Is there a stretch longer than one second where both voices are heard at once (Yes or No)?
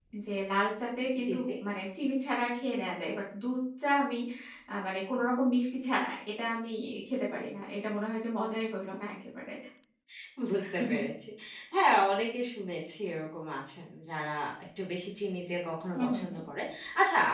No